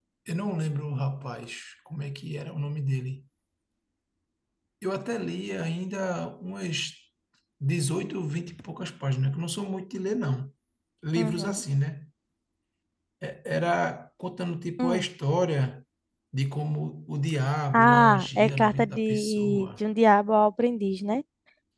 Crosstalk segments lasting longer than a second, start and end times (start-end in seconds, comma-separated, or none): 17.7-19.7